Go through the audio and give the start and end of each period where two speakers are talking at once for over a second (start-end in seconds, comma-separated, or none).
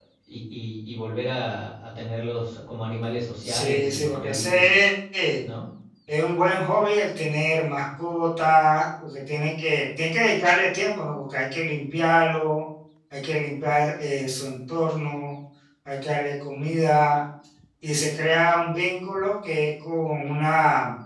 3.4-4.7